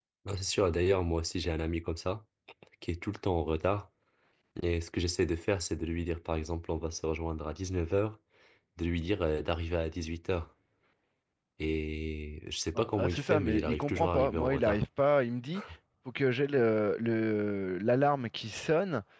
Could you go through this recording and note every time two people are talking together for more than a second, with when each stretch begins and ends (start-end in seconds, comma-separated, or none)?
12.8-14.8